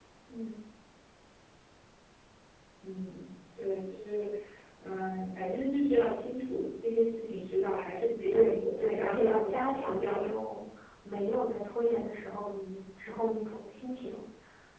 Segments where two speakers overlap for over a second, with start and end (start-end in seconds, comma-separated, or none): 8.3-10.3